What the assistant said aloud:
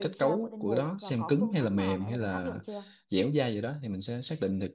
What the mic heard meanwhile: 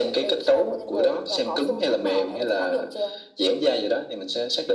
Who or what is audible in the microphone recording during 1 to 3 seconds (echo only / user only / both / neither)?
echo only